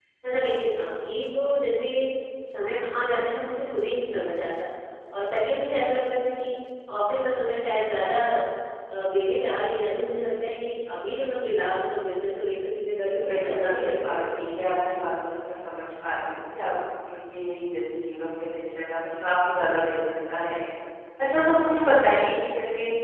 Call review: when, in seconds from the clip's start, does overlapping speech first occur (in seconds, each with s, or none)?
13.3 s